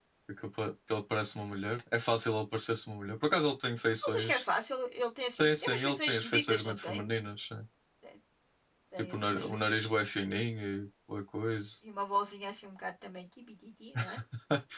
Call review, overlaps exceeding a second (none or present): present